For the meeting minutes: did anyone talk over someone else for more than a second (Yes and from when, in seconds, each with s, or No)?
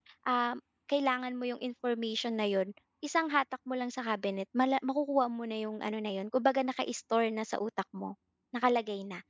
No